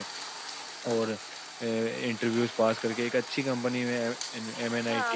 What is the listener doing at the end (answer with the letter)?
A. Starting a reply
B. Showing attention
A